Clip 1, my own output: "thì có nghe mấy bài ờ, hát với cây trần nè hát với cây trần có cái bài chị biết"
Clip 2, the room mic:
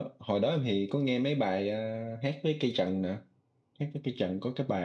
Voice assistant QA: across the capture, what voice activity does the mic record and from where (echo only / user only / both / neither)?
echo only